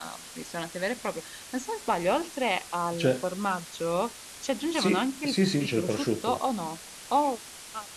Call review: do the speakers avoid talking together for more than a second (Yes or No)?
No